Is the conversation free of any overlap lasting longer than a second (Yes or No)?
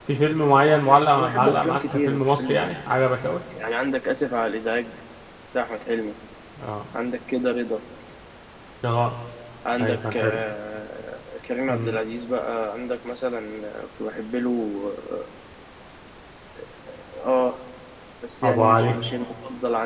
No